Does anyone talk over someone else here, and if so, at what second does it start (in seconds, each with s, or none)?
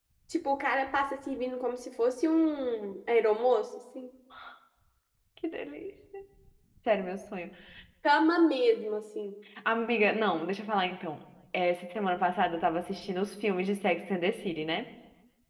none